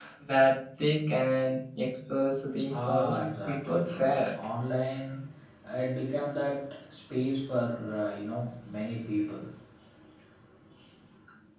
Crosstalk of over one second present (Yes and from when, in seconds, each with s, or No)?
Yes, from 2.6 s